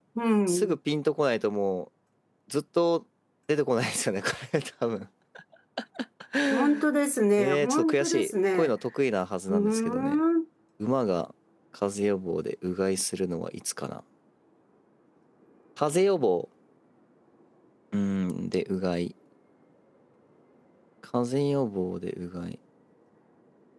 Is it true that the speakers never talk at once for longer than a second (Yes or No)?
No